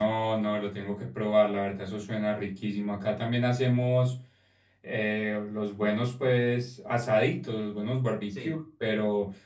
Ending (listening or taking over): listening